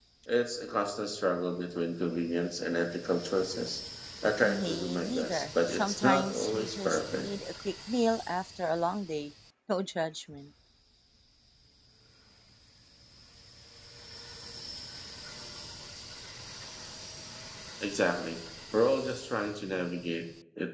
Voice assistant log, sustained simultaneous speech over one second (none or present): present